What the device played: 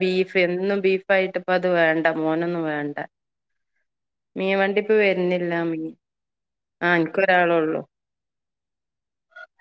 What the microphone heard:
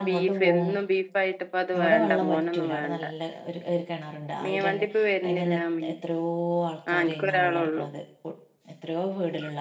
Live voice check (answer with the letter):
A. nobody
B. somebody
B